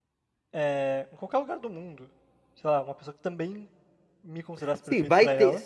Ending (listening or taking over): taking over